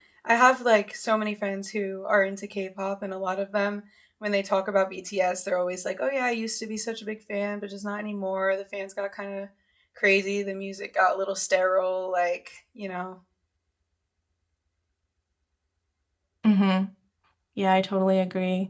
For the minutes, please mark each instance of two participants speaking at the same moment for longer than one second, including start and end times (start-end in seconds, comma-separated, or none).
none